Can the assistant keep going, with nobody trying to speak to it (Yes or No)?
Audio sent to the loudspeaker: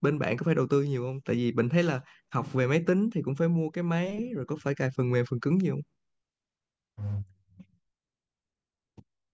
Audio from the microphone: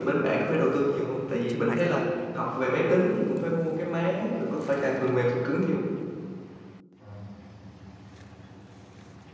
No